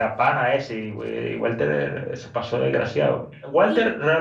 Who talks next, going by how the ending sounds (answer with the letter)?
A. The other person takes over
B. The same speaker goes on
B